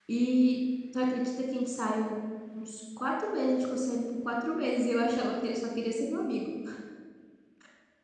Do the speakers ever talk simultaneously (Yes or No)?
No